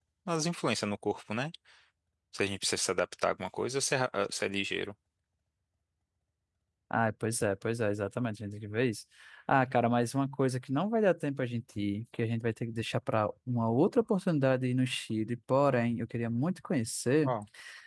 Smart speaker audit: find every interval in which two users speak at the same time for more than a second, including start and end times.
none

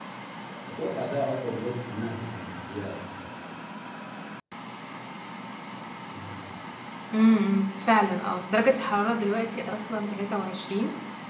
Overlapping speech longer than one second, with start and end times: none

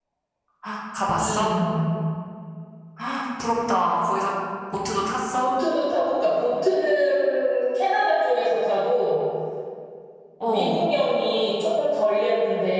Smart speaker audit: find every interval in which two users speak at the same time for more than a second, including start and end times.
none

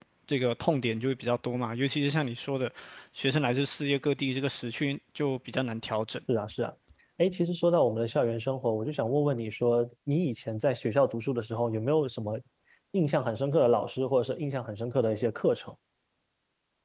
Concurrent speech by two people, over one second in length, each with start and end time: none

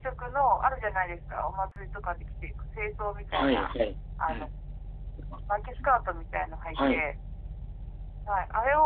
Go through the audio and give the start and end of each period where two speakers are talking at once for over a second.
none

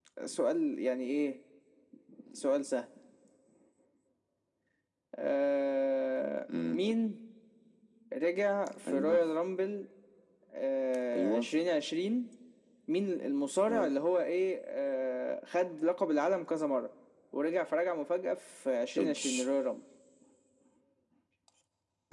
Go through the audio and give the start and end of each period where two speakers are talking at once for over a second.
none

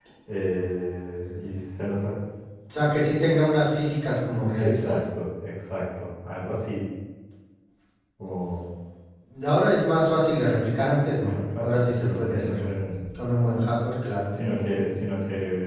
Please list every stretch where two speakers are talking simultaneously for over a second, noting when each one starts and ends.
11.2-12.7

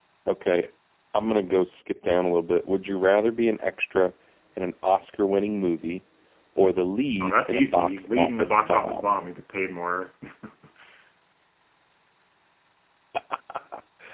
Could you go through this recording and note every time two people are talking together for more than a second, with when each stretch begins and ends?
7.2-9.1

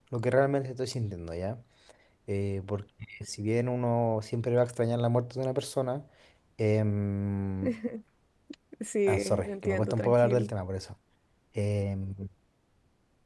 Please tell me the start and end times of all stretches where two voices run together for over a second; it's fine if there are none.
9.1-10.5

